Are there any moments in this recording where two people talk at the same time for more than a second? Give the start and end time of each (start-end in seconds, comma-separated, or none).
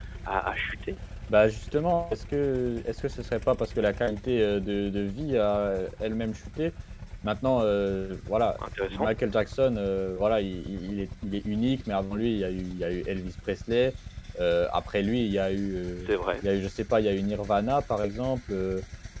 none